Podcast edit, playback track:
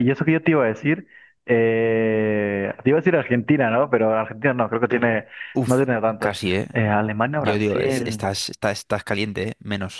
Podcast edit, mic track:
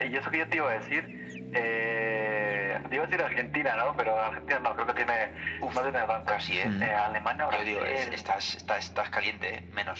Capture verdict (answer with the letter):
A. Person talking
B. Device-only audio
A